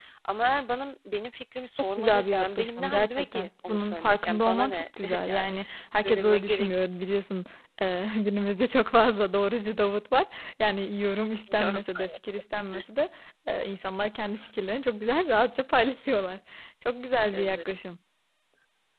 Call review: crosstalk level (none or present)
present